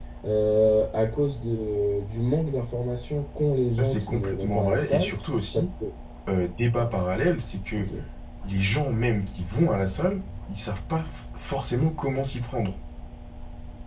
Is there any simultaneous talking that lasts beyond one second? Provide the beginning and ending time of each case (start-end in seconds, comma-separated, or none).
3.8-5.2